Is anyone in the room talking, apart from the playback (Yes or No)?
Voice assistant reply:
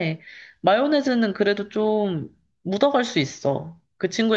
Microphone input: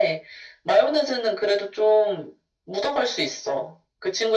No